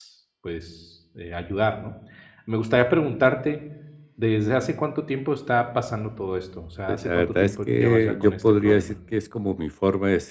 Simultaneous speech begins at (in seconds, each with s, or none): 6.9 s